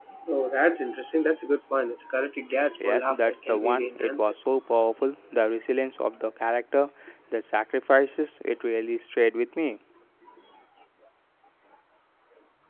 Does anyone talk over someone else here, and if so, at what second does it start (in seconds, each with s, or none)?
2.8 s